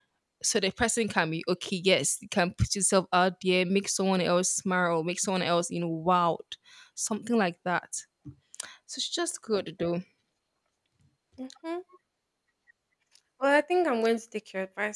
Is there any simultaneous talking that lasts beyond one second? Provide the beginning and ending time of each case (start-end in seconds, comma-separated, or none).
none